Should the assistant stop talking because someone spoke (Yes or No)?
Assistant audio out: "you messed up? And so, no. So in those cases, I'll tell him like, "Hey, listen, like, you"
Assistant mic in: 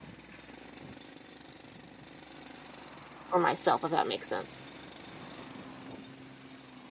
Yes